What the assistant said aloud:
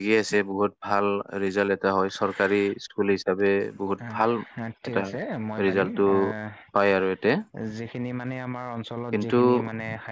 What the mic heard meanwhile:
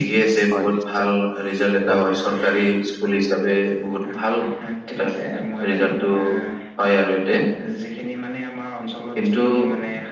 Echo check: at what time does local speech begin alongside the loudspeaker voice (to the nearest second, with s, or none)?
1 s